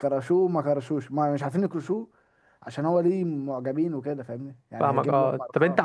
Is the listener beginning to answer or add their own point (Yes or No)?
Yes